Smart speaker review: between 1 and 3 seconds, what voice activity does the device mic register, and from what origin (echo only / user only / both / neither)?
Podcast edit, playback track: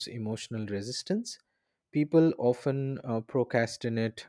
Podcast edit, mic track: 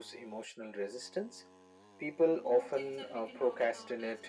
both